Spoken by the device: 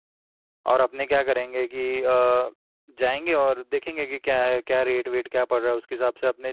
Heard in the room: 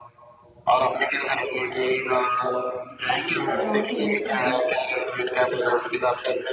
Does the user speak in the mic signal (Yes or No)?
Yes